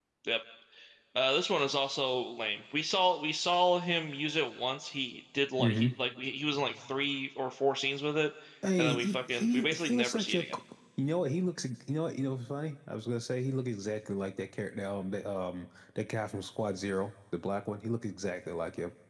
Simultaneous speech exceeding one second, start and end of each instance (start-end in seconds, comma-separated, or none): 8.7-10.6